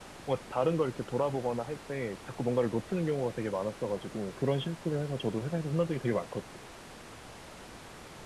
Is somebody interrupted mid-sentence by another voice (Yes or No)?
No